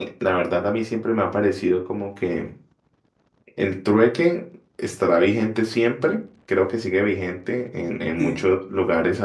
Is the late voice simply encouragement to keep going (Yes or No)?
Yes